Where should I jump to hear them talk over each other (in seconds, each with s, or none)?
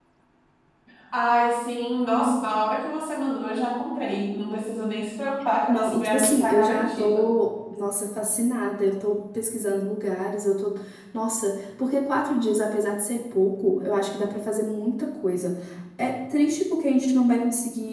5.7 s